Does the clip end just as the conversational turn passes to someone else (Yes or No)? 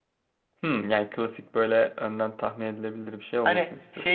Yes